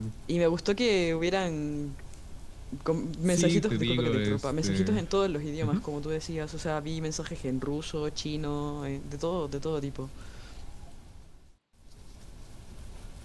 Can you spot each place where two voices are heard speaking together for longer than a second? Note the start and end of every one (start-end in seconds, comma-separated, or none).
3.2-5.0